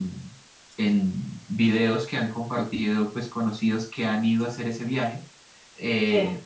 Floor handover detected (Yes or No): No